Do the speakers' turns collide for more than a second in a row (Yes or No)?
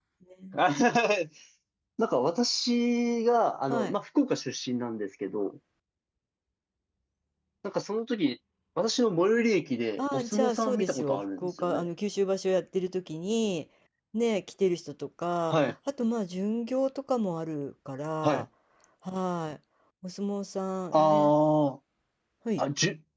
Yes